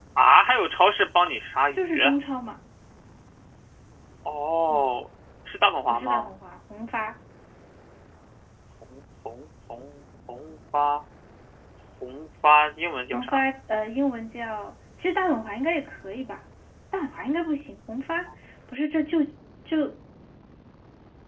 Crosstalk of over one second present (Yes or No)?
No